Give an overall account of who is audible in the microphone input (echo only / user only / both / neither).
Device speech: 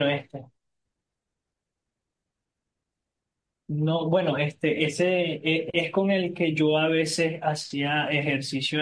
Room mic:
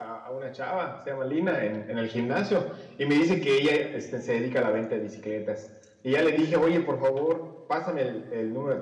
user only